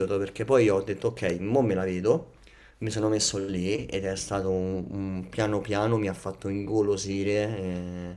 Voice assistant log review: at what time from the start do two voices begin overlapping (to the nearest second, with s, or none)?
none